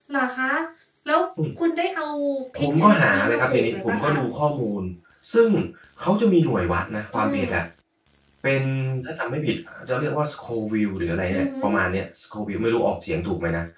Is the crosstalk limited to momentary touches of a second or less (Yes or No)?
No